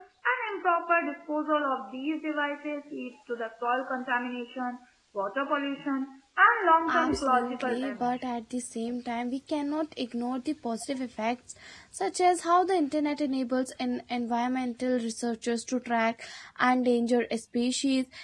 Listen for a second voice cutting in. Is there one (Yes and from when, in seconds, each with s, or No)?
Yes, from 6.9 s